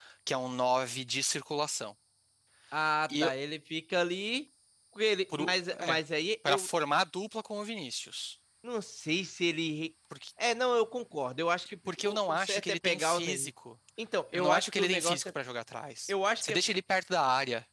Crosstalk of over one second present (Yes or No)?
Yes